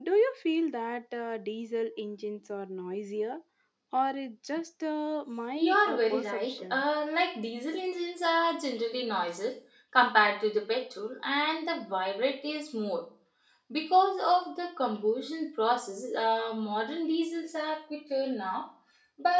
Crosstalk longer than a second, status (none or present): present